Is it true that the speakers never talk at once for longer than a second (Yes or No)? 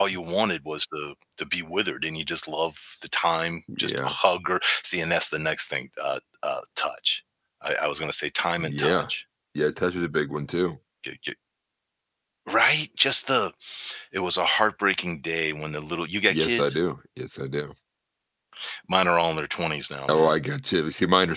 Yes